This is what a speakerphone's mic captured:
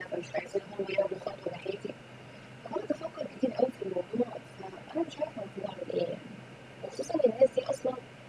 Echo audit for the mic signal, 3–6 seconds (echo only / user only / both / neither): echo only